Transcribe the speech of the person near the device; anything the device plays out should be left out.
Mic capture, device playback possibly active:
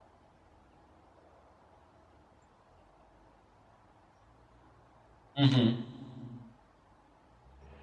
Hı hı.

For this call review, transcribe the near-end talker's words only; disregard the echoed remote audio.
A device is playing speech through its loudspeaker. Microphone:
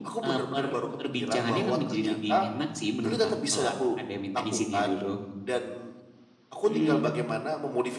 none

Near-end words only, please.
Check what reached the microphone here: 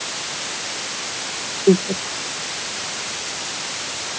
супер.

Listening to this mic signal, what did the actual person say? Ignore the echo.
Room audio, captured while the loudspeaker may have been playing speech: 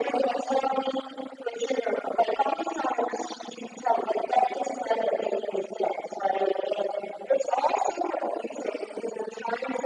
none

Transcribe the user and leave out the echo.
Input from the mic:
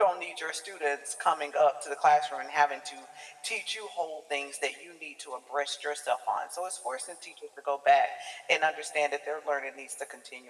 none

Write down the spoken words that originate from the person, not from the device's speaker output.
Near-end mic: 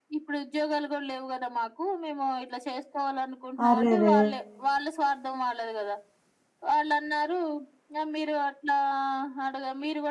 అరెరే!

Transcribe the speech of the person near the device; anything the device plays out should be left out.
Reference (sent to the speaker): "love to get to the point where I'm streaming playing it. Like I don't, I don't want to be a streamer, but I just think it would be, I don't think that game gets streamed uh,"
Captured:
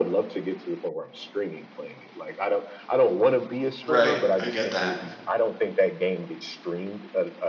Right. I get that.

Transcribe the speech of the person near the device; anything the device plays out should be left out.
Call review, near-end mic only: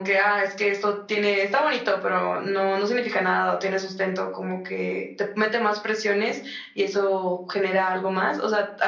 none

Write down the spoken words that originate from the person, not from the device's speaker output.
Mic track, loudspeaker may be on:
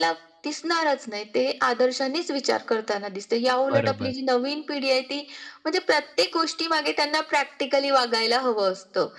बरोबर.

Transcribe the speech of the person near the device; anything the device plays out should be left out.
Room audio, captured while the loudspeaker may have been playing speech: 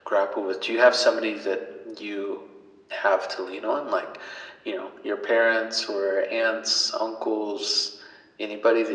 none

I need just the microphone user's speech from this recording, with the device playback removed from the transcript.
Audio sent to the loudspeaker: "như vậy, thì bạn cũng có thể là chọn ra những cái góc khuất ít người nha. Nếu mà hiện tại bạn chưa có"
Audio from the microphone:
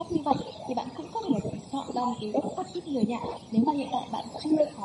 none

